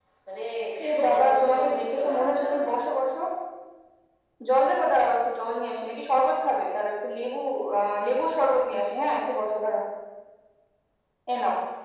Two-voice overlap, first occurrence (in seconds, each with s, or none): 0.9 s